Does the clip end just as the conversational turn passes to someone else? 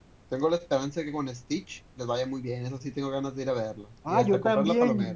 Yes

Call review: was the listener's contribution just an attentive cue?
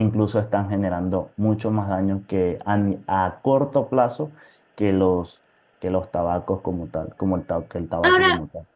No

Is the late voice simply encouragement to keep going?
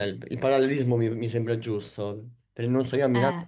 Yes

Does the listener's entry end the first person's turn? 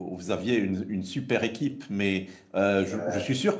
No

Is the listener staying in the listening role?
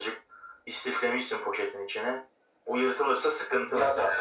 No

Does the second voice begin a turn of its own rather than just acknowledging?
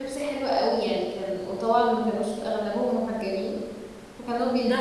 Yes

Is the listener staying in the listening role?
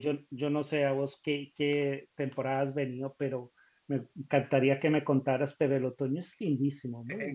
No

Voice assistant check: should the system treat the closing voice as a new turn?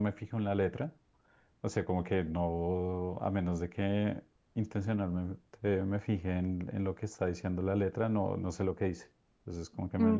Yes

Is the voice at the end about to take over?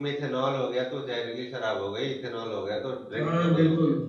Yes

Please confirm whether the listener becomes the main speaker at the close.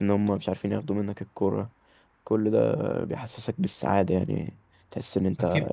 Yes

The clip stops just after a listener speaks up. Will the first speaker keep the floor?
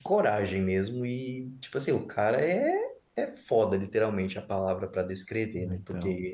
Yes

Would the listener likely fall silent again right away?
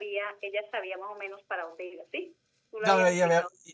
No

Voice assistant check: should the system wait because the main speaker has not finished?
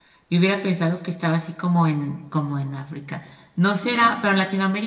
Yes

